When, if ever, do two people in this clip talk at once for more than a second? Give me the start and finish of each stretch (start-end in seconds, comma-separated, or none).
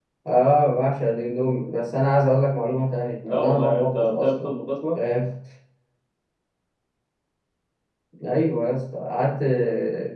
3.3-4.5